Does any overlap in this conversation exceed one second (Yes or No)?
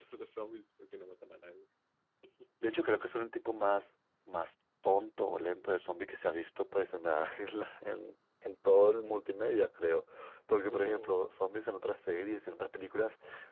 No